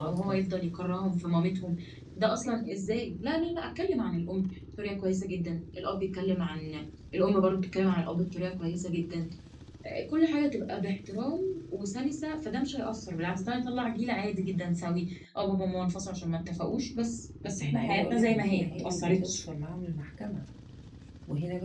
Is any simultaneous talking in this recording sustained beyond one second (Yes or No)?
Yes